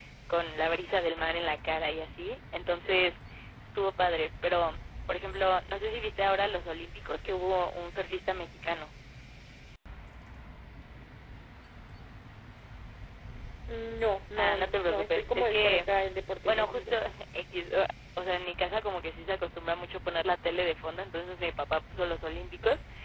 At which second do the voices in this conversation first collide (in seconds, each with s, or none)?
14.4 s